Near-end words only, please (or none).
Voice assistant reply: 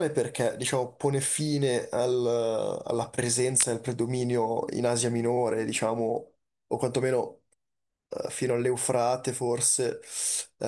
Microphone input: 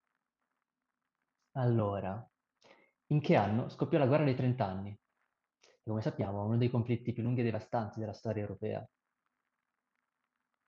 Allora, in che anno scoppiò la guerra dei trent'anni? Che come sappiamo è uno dei conflitti più lunghi e devastanti della storia europea.